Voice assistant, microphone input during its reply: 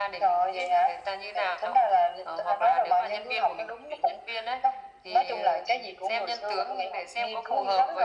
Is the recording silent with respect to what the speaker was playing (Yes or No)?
No